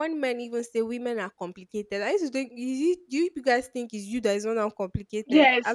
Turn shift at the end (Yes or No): Yes